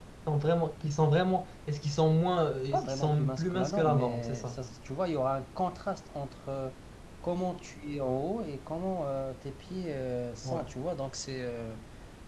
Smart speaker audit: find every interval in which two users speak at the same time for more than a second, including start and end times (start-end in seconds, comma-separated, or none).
2.7-4.6